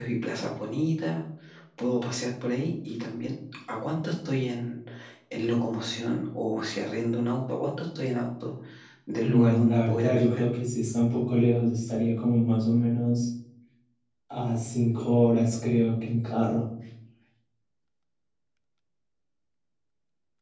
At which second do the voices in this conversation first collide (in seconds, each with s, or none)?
9.2 s